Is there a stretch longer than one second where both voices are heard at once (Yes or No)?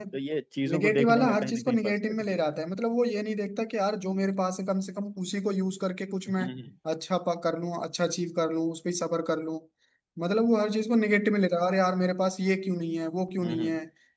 Yes